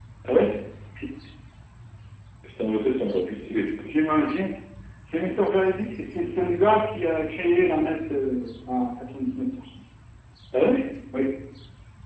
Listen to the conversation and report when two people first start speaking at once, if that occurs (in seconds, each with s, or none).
none